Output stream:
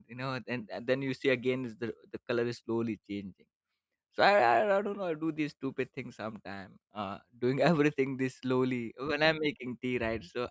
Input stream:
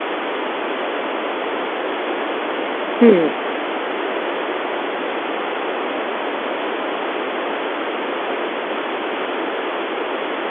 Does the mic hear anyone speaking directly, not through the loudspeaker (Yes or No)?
Yes